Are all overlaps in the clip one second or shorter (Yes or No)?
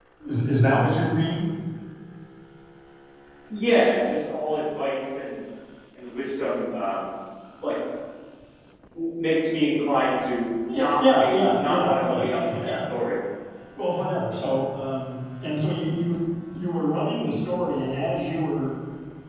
No